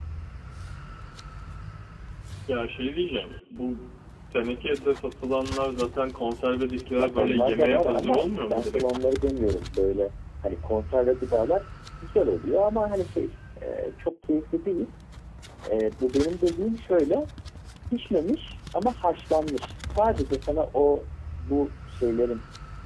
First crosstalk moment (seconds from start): 7.0 s

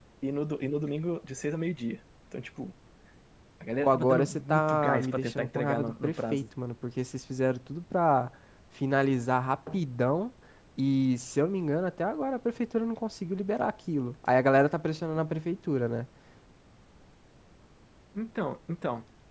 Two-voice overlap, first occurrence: 3.8 s

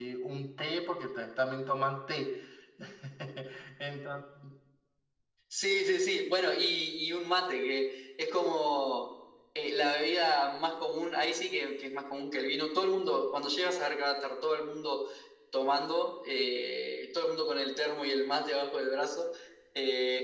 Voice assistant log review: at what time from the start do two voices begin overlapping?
none

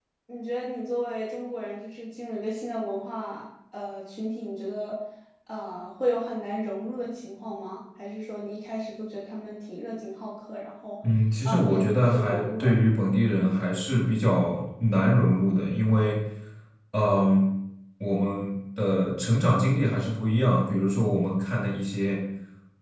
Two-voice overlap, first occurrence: 11.4 s

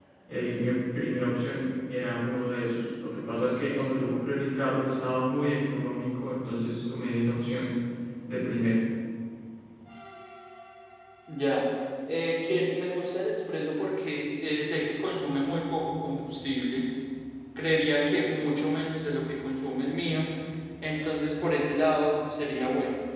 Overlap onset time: none

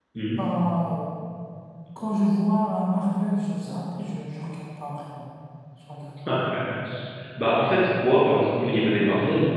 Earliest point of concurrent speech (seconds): none

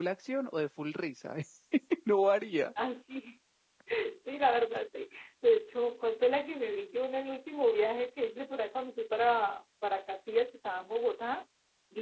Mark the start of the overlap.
none

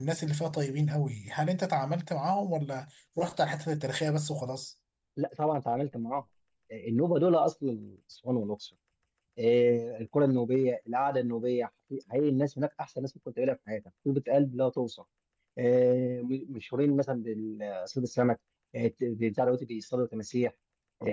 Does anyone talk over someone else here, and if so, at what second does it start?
none

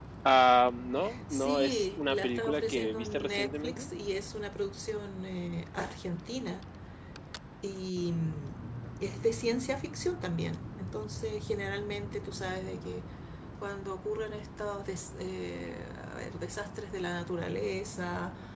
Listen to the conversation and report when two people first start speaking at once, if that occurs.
1.3 s

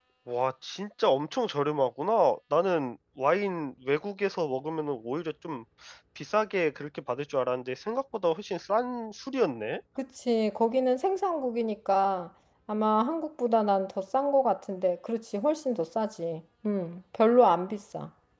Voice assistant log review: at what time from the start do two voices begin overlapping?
none

